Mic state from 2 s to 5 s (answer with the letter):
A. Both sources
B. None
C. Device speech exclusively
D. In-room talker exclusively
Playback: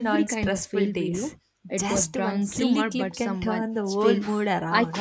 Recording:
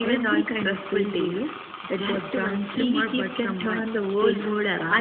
C